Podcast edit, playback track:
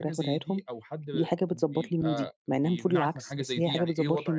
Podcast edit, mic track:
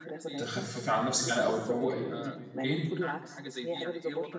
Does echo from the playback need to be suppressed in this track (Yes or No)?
Yes